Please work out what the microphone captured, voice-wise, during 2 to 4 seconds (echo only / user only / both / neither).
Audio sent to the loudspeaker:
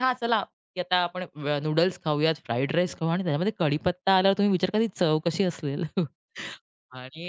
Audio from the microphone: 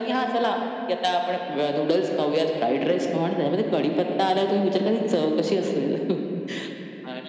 echo only